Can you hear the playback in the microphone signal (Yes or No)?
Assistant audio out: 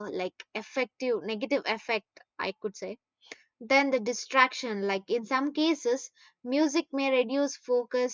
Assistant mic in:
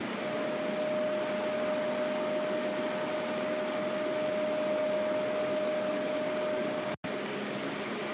No